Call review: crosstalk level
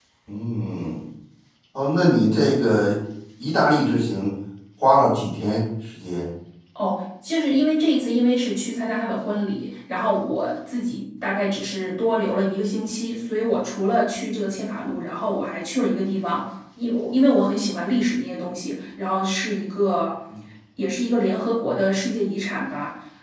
none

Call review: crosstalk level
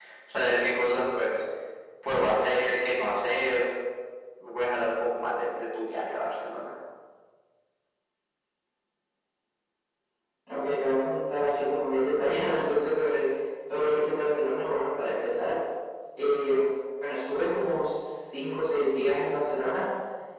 none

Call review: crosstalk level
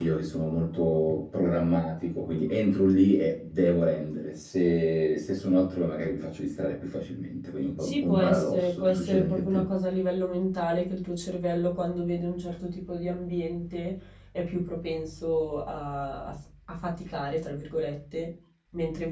present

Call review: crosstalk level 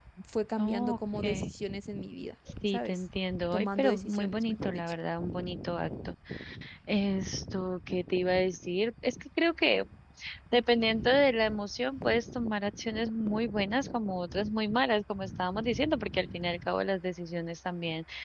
present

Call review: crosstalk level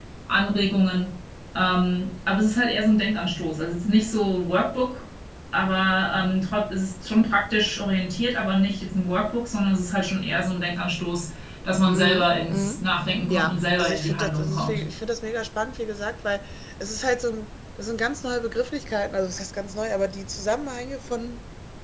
present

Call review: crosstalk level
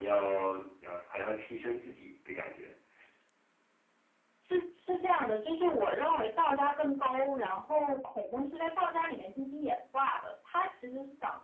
none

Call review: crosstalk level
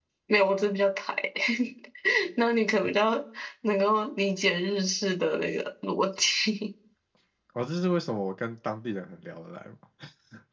none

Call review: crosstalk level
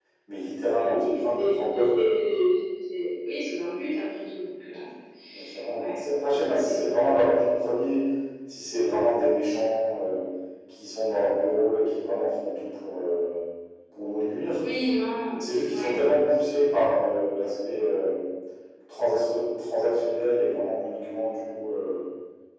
present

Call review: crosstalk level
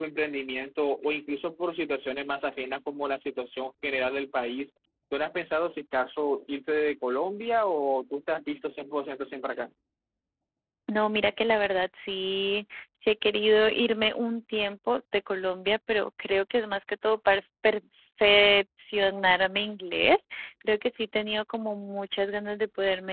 none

